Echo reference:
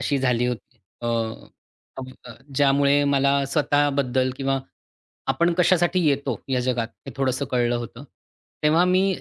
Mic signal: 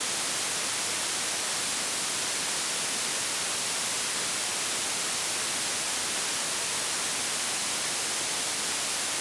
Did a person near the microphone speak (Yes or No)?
No